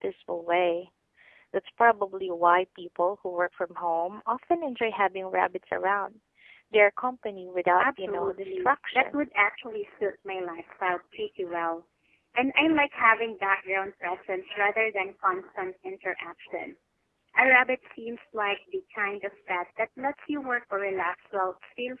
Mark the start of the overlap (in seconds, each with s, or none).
7.8 s